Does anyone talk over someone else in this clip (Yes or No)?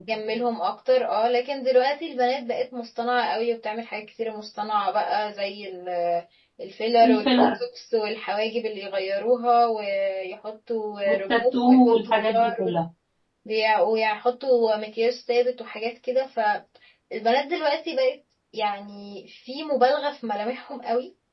Yes